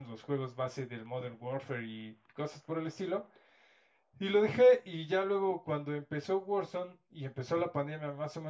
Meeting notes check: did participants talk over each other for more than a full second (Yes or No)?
No